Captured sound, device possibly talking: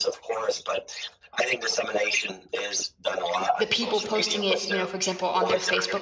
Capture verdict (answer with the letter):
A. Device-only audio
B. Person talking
B